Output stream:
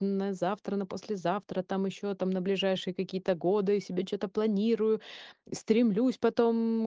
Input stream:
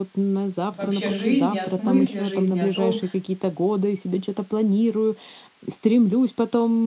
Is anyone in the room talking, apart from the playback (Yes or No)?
Yes